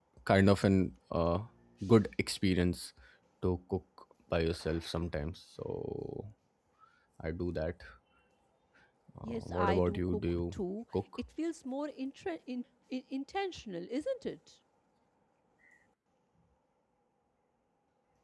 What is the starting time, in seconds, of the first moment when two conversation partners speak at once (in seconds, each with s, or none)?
9.2 s